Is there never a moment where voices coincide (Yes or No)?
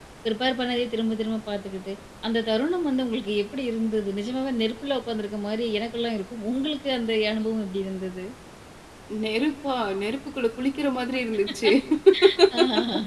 Yes